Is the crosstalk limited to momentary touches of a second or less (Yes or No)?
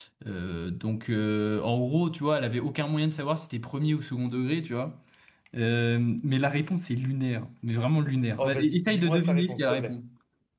No